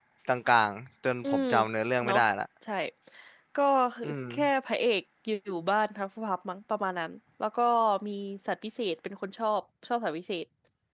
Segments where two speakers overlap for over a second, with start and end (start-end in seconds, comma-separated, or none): none